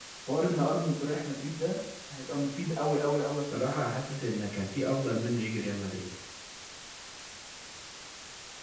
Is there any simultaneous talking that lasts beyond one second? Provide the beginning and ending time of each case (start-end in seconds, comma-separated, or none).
none